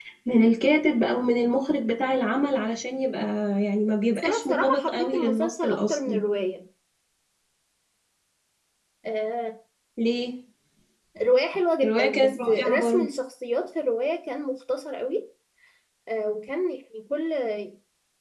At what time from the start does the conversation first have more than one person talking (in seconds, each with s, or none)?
4.2 s